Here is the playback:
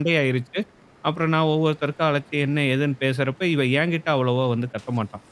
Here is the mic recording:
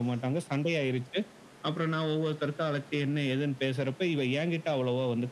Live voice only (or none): none